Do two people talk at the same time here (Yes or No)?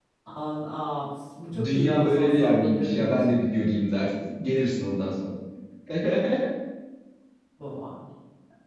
Yes